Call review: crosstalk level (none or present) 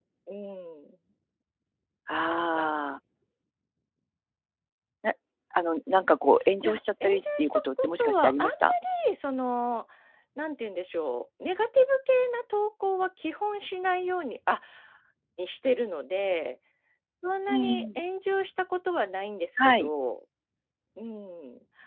present